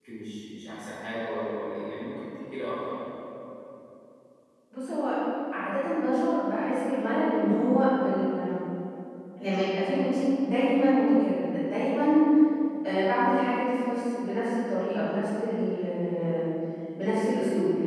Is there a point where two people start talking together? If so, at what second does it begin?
none

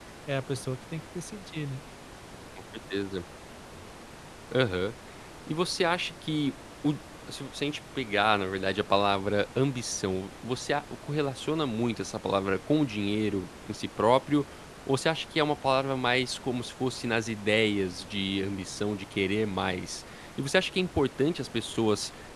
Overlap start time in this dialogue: none

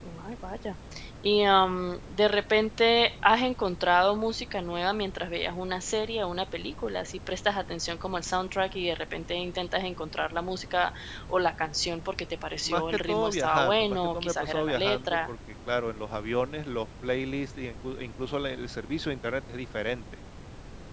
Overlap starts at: 12.7 s

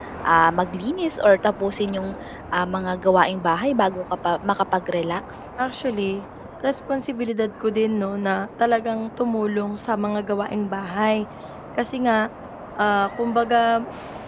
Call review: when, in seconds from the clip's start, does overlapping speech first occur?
none

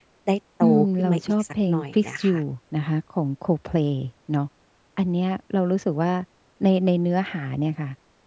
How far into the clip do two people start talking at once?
0.6 s

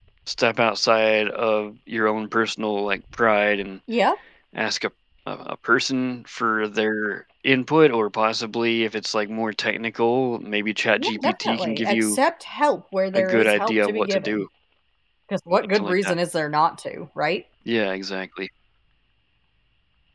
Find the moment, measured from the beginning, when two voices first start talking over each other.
11.0 s

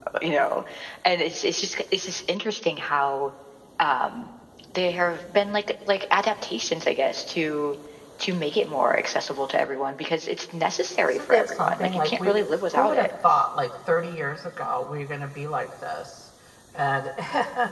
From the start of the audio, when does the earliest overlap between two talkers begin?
11.1 s

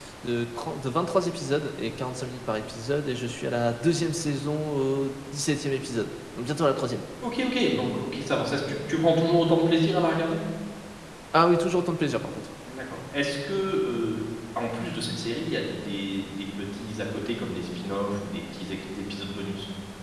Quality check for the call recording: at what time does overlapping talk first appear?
none

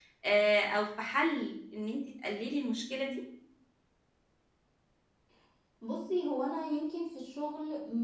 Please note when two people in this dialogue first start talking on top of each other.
none

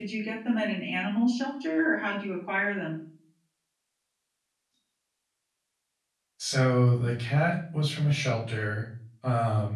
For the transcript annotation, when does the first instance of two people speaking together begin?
none

